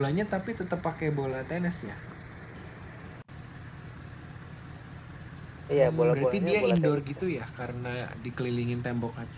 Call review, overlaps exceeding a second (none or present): present